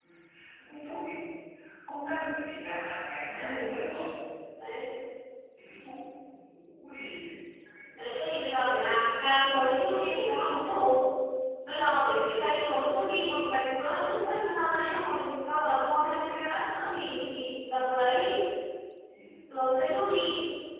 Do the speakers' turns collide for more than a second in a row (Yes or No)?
Yes